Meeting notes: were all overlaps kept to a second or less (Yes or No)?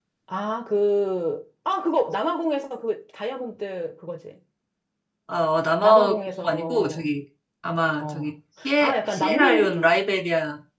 No